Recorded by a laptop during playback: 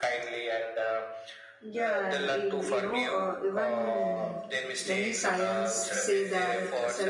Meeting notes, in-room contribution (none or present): present